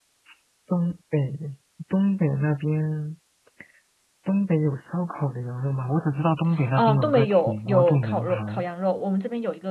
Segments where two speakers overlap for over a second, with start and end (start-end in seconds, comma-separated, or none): 6.7-8.6